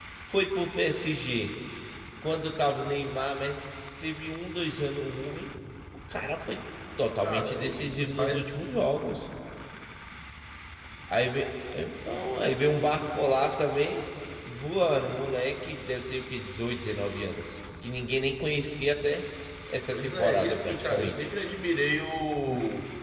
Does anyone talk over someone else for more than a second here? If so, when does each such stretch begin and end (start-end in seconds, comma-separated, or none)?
7.2-8.5, 19.9-21.1